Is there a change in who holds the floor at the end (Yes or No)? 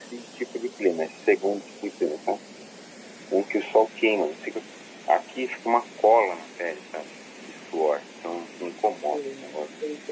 Yes